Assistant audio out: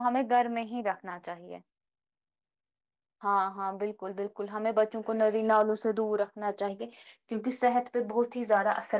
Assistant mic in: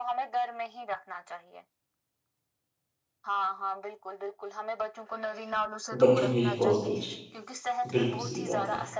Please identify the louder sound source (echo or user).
user